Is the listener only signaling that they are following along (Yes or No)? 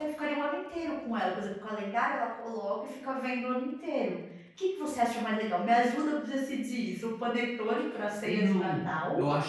No